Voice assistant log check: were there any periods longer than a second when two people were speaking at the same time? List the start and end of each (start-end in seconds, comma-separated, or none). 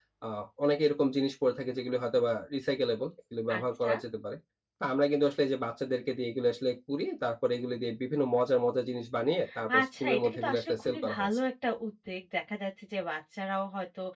9.7-11.4